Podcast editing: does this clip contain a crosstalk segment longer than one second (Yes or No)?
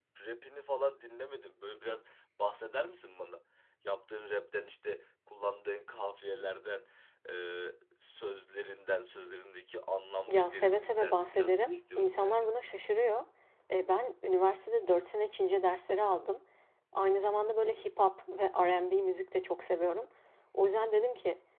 Yes